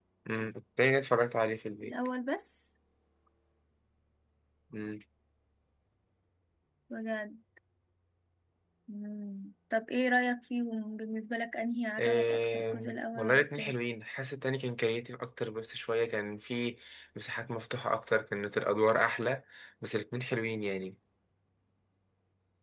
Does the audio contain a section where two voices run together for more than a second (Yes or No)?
Yes